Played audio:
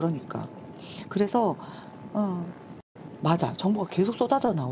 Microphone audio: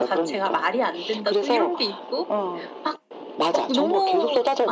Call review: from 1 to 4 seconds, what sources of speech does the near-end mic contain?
both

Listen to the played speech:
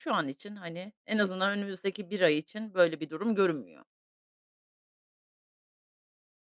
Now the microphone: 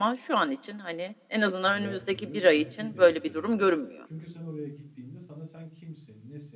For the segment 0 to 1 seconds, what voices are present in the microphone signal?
echo only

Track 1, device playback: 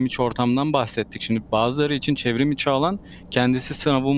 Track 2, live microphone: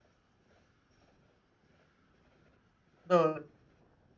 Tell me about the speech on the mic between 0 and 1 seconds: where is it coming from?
neither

